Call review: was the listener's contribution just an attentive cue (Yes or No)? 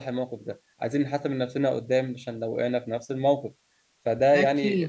Yes